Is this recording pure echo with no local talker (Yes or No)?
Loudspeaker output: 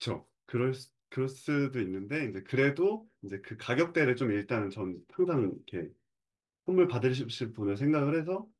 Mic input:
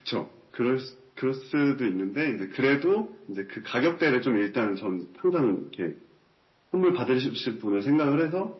Yes